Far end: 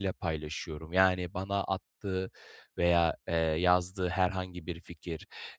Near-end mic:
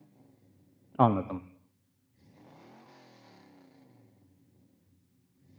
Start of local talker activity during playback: 1 s

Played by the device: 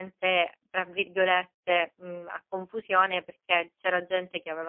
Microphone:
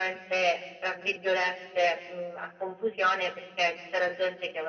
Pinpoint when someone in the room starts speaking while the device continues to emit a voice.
none

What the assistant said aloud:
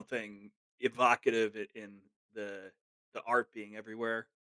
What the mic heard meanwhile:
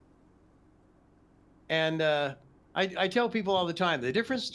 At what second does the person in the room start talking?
2 s

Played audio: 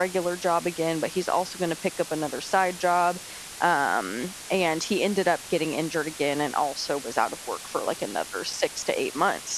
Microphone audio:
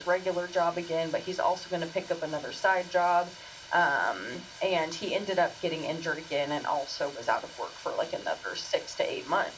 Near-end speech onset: none

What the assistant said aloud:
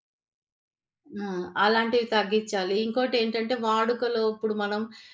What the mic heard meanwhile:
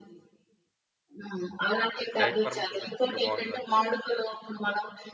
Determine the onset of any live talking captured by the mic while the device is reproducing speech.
2 s

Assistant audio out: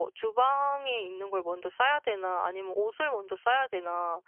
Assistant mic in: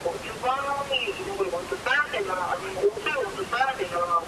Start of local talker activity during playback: none

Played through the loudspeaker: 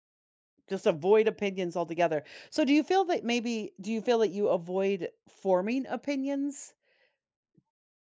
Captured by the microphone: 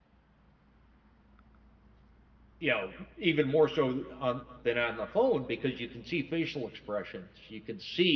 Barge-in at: 3 s

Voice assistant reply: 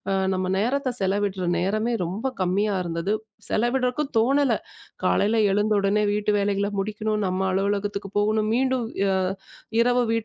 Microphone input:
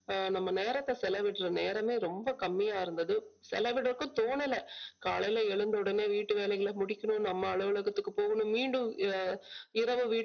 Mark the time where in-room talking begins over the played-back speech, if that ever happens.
none

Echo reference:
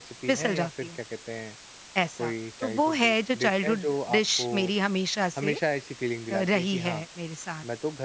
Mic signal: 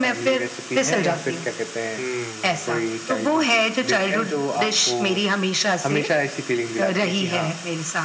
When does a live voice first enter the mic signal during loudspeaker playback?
2 s

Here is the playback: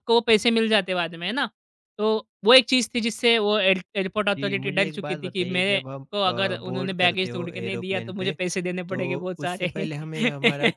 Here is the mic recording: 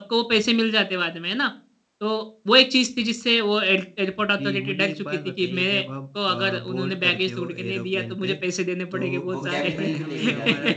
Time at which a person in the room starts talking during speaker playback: 9 s

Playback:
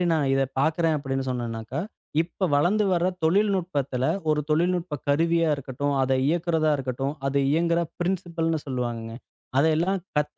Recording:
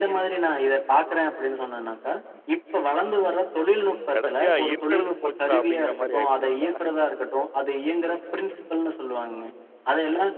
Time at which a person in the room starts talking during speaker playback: 4 s

